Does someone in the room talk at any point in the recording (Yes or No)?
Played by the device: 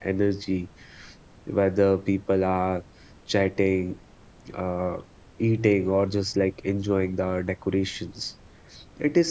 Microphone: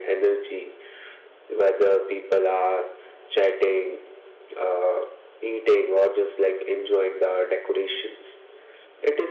No